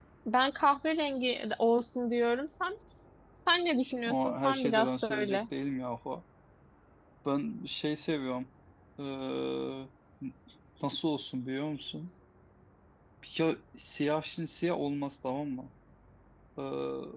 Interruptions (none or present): present